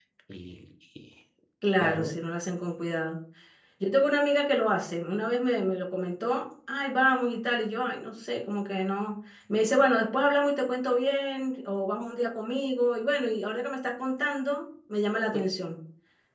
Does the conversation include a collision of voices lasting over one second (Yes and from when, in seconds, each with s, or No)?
No